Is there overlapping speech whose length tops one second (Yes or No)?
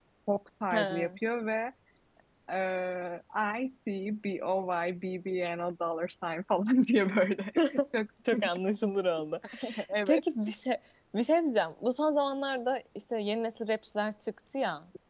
No